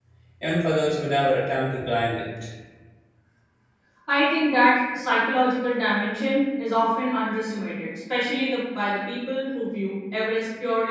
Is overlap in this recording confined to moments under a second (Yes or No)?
Yes